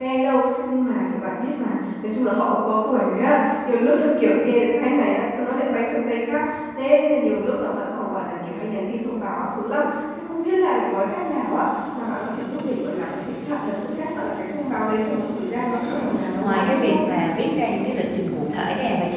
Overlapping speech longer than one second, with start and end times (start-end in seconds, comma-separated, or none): 15.7-17.0